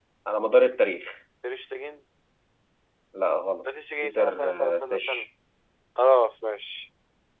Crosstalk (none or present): present